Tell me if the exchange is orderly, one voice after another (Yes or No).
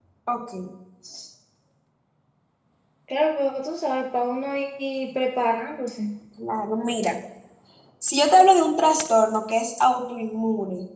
Yes